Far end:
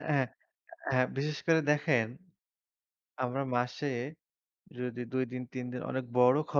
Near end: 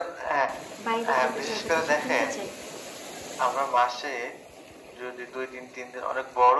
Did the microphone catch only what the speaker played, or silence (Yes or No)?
No